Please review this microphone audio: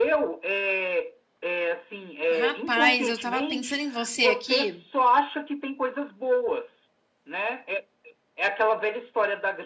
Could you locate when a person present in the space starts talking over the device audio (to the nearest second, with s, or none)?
2 s